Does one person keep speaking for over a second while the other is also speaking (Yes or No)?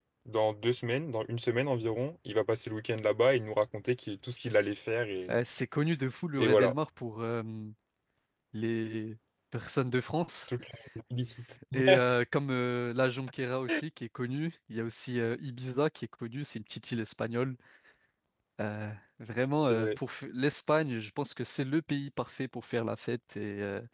No